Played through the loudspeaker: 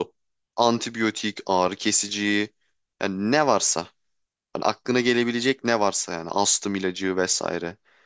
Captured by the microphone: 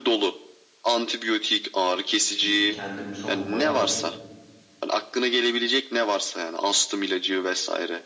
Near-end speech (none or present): present